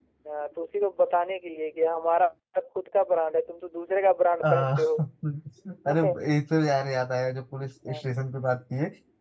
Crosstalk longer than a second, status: none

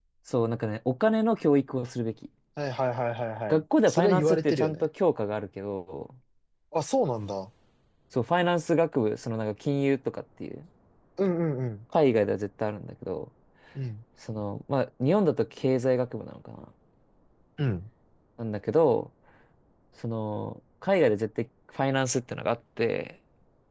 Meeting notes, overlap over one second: present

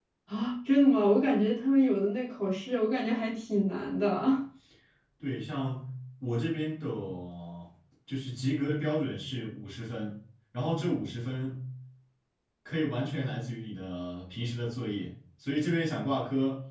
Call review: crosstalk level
none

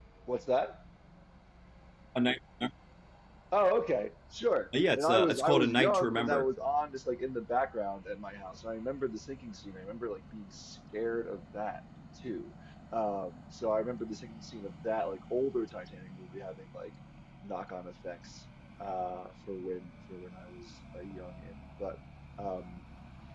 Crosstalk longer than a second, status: present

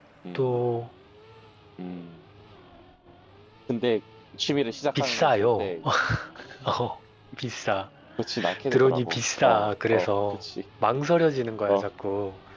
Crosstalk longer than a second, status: present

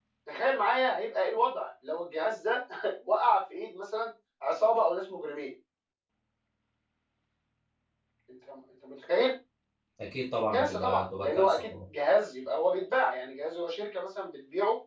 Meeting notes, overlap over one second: present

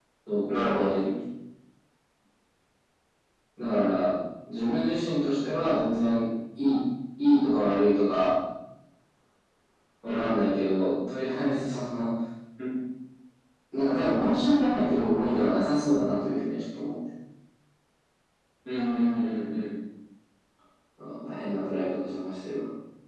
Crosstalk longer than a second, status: none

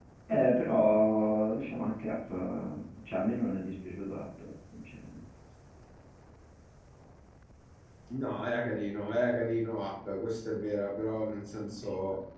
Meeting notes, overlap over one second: none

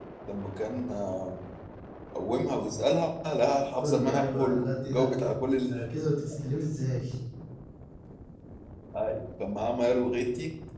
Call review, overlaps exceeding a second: present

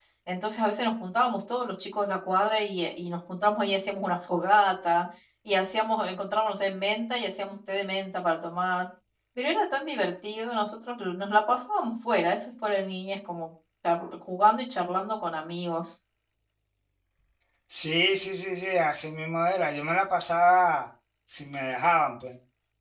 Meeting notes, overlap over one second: none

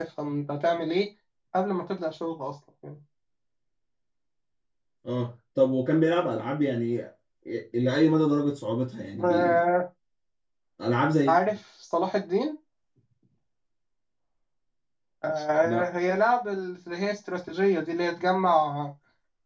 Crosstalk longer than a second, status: none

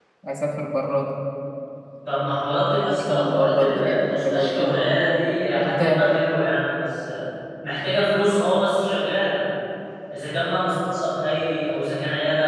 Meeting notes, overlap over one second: present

